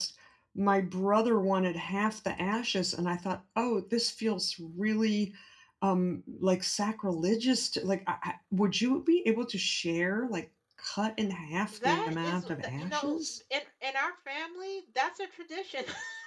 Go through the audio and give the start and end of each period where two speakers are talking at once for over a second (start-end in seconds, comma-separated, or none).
11.7-13.2